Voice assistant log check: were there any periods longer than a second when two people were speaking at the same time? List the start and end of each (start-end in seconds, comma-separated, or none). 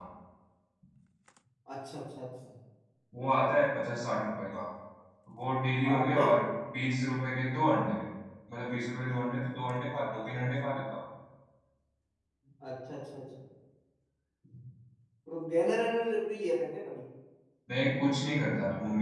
none